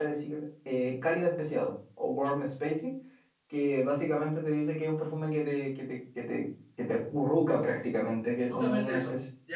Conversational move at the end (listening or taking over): taking over